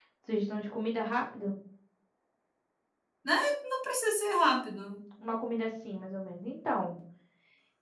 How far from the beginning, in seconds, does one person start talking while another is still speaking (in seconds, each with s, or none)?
none